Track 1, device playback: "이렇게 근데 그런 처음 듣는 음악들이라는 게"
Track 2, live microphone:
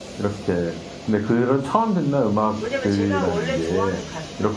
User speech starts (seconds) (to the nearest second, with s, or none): 3 s